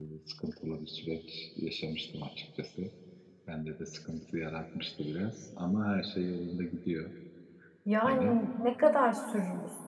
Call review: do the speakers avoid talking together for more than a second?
Yes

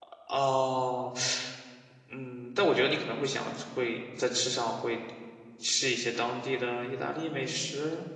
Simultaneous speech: No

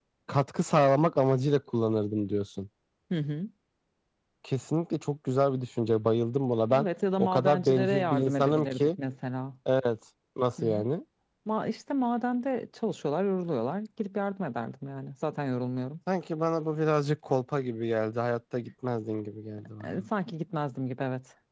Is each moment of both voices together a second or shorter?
No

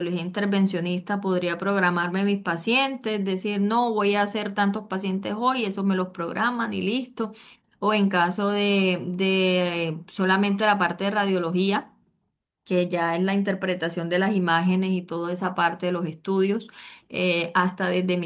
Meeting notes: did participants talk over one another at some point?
No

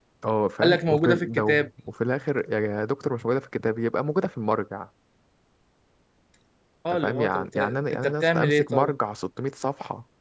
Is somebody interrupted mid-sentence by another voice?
Yes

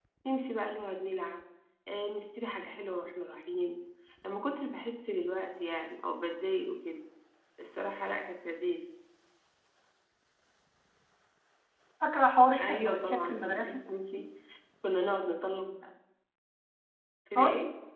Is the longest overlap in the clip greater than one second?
Yes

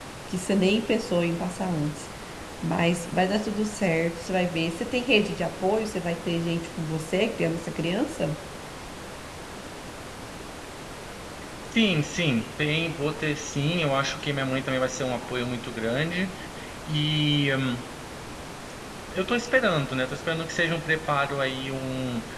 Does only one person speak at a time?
Yes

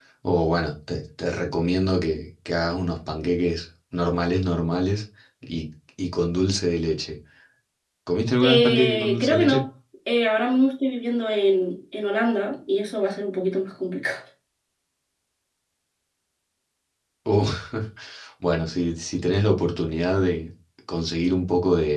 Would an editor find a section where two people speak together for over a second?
Yes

